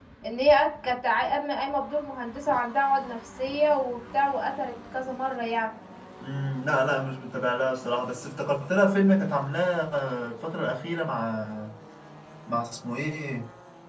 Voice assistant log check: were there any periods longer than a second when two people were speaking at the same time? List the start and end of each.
none

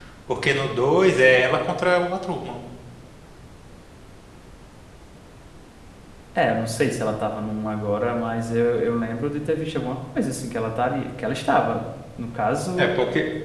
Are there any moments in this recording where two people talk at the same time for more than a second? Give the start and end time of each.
none

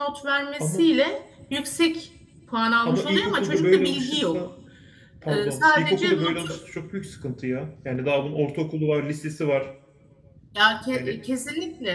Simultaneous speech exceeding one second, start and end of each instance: 2.8-4.4, 5.3-6.6

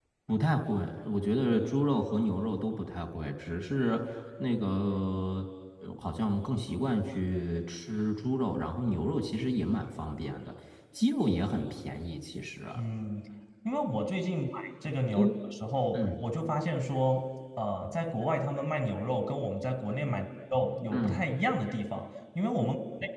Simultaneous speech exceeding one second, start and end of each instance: none

